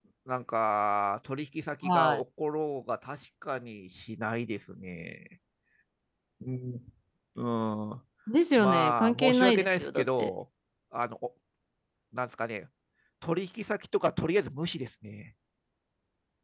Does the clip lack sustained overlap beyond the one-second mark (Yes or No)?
No